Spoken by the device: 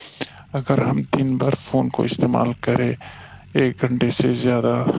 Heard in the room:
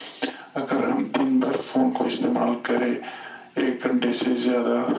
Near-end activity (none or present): none